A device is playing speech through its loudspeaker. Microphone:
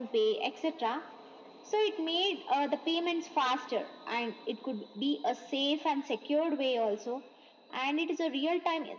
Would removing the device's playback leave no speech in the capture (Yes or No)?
Yes